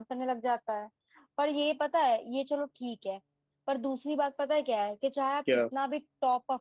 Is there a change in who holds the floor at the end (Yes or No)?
No